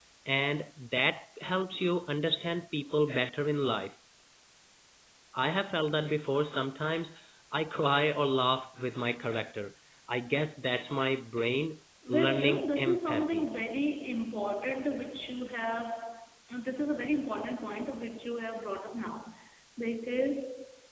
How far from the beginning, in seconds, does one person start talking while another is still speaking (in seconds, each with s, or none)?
12.1 s